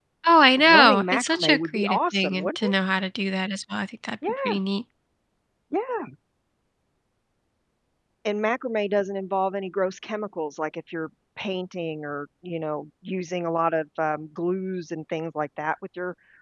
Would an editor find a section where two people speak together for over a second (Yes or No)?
Yes